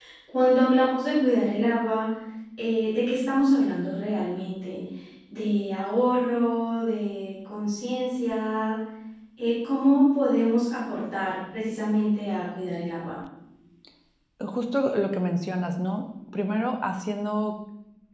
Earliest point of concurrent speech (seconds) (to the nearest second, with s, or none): none